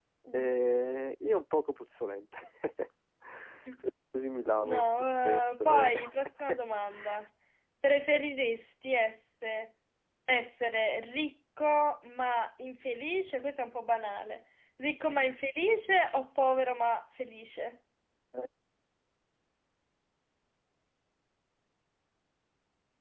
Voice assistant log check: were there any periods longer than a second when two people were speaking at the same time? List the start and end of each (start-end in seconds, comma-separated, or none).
4.6-5.9